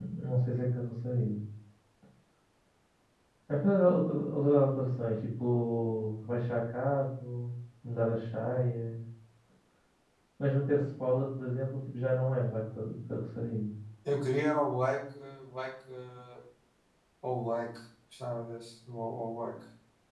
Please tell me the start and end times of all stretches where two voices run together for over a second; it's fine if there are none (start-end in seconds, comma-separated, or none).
none